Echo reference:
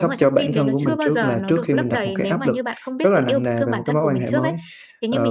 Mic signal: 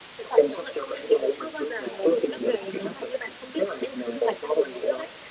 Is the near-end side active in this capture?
No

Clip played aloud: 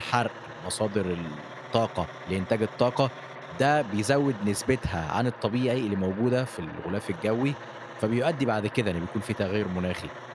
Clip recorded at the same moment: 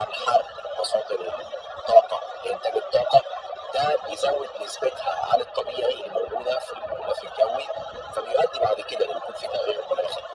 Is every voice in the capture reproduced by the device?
Yes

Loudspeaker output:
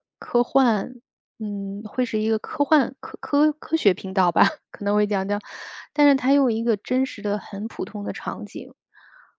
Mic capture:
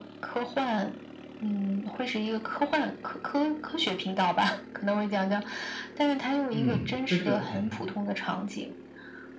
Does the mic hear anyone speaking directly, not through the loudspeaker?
Yes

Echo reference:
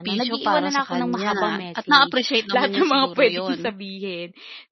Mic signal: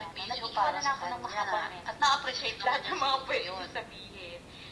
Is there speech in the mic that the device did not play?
No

